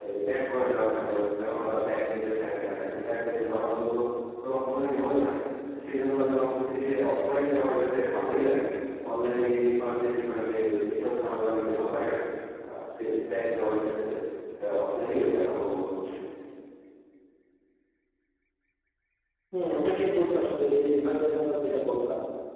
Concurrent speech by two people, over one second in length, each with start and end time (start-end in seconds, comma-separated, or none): none